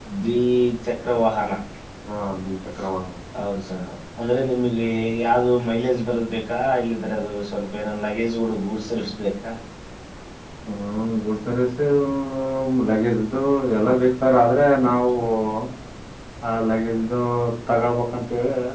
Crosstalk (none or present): none